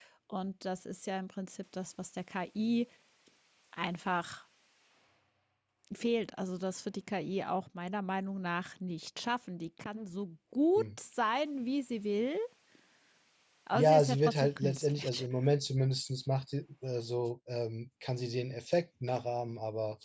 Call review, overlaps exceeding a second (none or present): present